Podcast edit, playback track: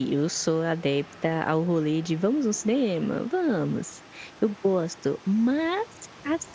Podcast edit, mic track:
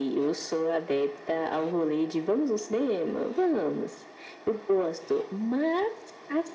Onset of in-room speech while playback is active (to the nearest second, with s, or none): none